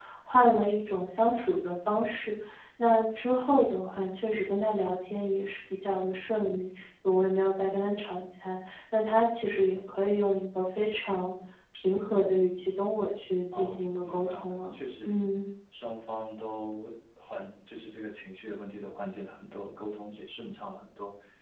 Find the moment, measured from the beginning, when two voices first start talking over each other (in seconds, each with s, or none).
13.5 s